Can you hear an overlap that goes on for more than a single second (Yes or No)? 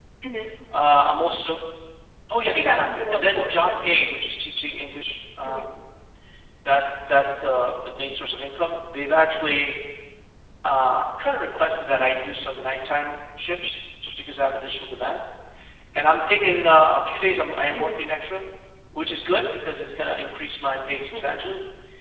Yes